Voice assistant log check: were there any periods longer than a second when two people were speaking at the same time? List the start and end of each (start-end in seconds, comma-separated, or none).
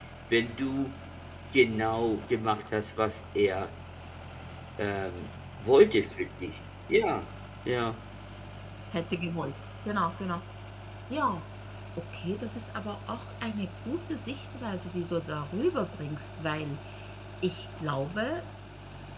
none